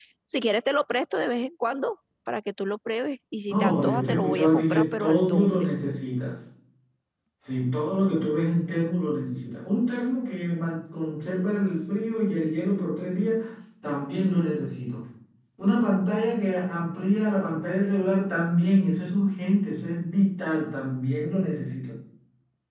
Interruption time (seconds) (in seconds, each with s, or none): 3.5 s